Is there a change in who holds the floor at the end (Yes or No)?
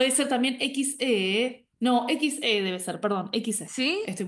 Yes